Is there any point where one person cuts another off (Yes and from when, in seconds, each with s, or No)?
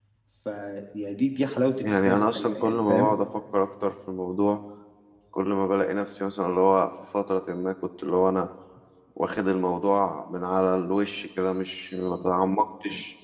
Yes, from 1.8 s